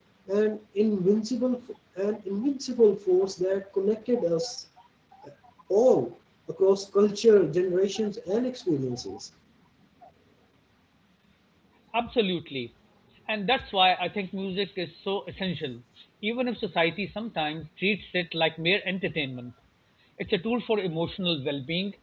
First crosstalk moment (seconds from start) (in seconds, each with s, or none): none